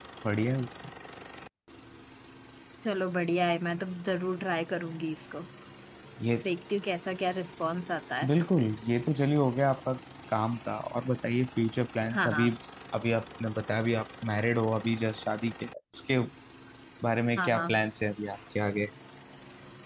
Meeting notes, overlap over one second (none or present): none